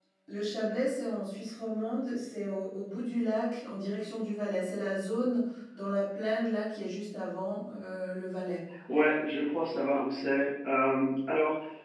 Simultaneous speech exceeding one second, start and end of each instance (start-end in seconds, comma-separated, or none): none